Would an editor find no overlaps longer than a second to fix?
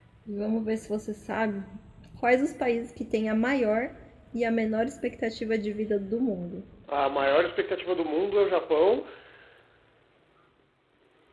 Yes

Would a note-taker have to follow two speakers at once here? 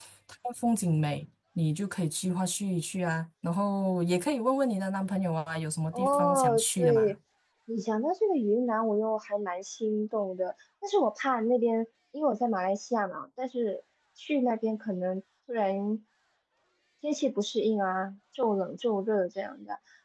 Yes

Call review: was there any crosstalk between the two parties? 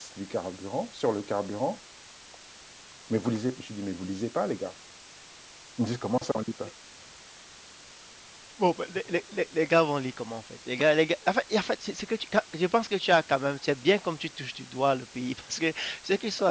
No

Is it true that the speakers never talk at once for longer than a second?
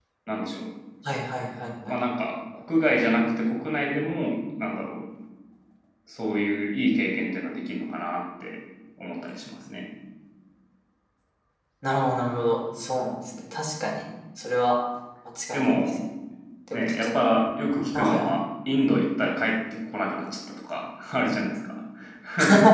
Yes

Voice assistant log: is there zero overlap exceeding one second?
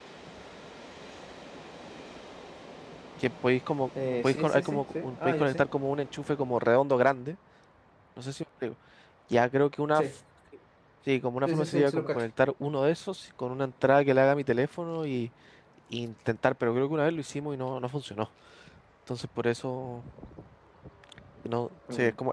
No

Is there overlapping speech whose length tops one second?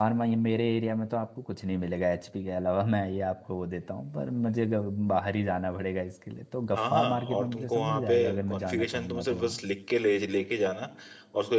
Yes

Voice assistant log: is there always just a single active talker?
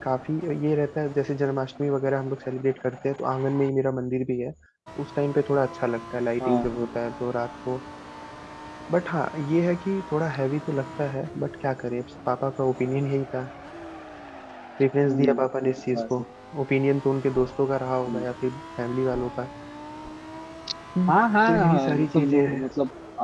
No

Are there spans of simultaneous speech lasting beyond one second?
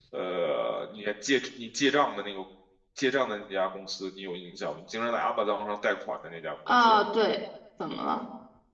No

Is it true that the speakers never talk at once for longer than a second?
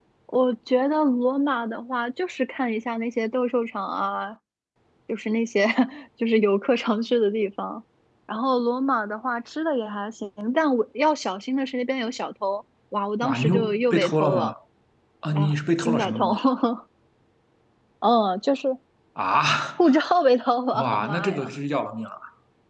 No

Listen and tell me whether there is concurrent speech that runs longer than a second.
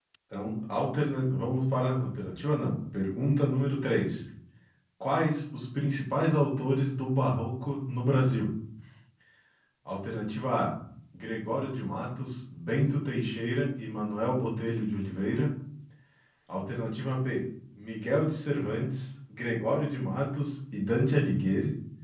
No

